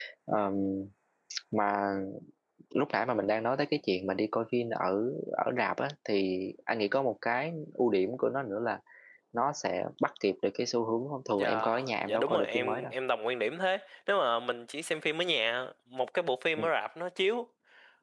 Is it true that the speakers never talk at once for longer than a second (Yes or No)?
No